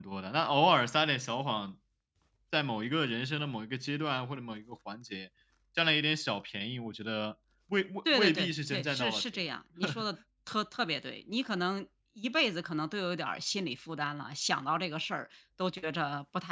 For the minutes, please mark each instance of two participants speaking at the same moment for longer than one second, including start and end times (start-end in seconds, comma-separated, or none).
8.1-9.4